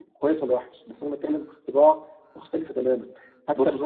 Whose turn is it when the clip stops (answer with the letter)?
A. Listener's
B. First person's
A